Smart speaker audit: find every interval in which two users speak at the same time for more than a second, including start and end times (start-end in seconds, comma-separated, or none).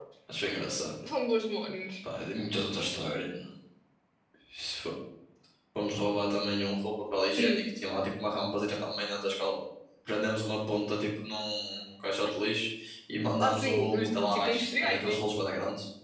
13.4-15.2